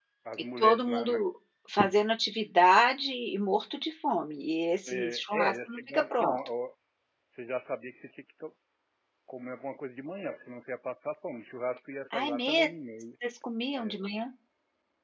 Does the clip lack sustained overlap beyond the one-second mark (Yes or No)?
No